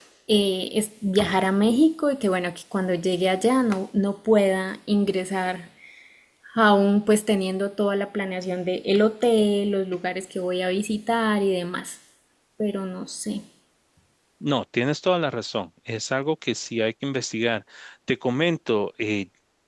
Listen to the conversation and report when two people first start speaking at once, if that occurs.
none

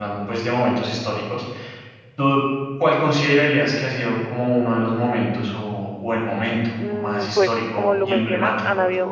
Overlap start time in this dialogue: 6.8 s

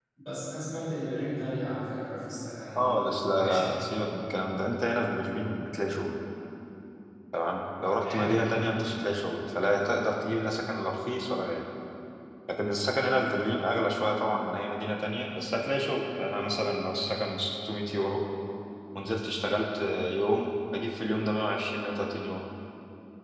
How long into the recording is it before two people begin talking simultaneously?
2.8 s

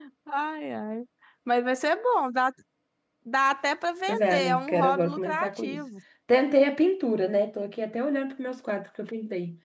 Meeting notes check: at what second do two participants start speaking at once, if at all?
4.1 s

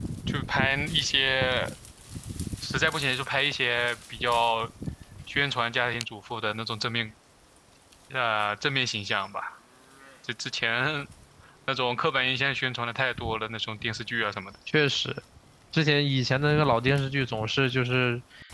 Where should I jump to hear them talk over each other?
none

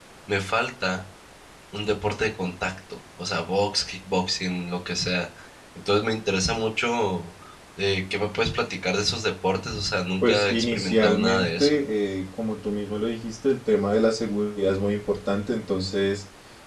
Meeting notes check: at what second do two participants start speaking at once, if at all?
10.2 s

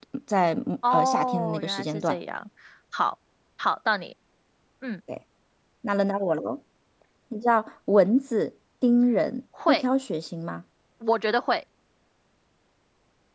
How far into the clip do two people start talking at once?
0.9 s

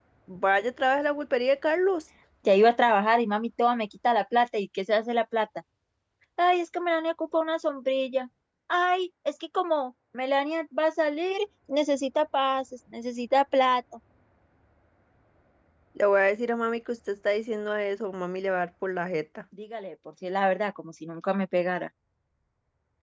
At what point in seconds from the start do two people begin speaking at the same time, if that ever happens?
none

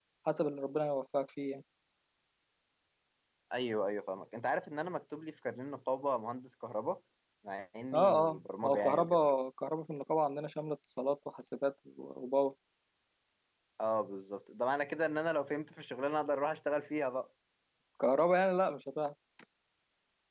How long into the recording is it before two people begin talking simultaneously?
7.9 s

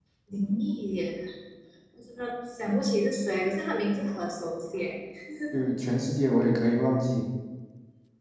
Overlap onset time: none

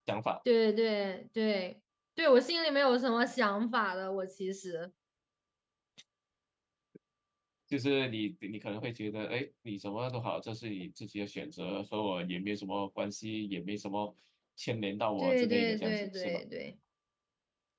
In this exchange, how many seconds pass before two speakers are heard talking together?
15.2 s

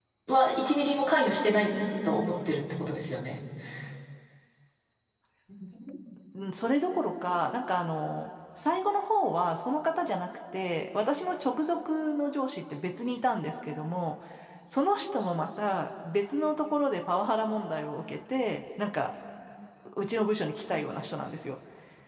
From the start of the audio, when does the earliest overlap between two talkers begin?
none

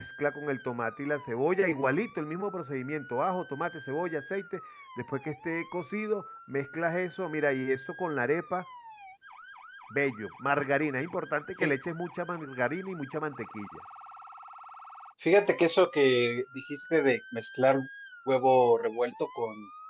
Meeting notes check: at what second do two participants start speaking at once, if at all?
none

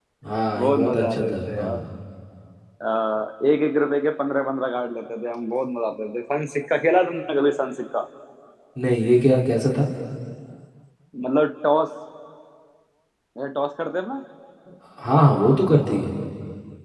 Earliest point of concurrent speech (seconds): 0.6 s

